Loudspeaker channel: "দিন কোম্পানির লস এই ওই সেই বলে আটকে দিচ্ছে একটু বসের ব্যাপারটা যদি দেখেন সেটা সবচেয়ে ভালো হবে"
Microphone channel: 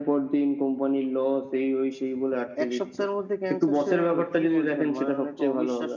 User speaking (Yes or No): Yes